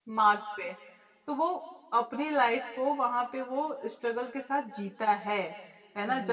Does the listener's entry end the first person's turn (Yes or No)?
No